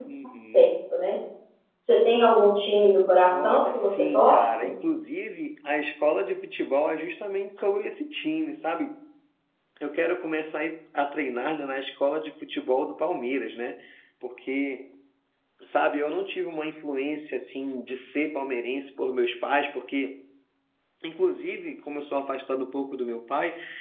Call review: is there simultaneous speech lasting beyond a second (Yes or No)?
Yes